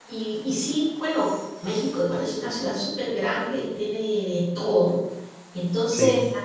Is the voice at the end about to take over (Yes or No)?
No